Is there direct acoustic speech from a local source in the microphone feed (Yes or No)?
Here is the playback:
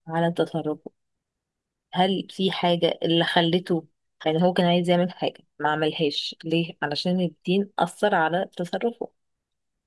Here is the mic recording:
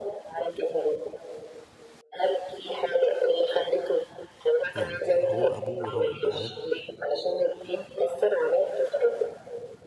Yes